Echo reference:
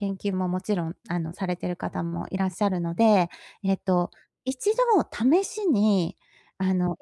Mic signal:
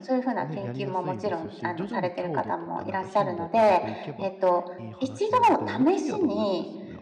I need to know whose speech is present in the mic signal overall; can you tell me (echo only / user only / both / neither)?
both